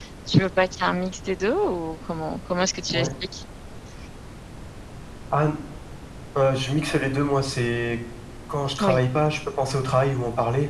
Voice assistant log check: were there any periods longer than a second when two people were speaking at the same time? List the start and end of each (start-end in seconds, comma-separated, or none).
none